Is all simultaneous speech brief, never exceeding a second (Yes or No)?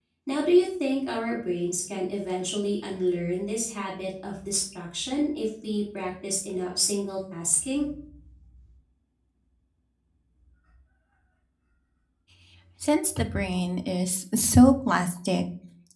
Yes